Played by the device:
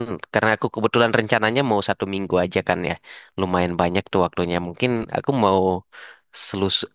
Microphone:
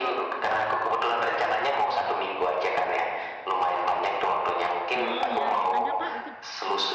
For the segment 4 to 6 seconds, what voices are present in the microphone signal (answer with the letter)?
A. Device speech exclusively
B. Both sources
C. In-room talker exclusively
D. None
B